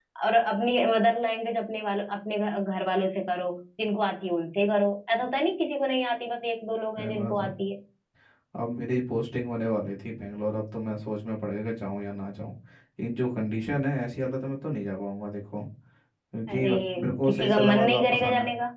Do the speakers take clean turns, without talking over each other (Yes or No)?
No